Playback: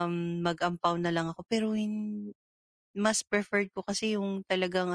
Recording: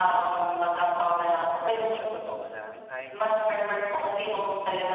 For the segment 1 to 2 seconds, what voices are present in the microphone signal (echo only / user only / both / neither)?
both